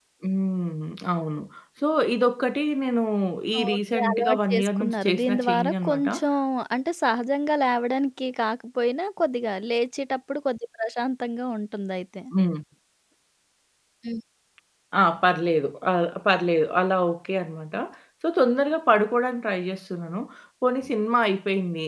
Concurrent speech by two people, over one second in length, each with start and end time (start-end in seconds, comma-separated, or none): 3.7-6.1